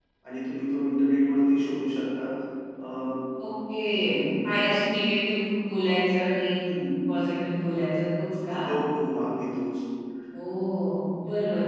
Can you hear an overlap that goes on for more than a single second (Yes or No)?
No